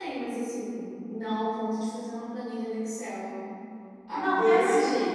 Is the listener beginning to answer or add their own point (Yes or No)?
No